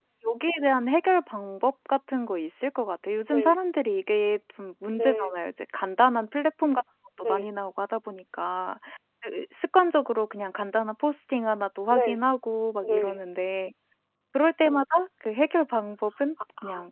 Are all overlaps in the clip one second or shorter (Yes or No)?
Yes